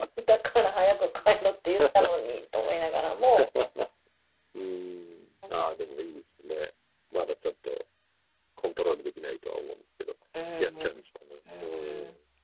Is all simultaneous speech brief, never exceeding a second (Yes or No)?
Yes